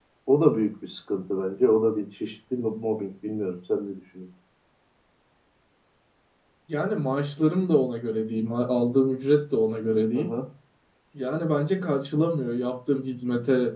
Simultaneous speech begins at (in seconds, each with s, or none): none